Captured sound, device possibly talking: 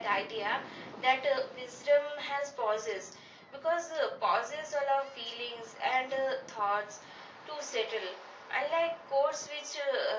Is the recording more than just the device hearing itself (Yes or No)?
No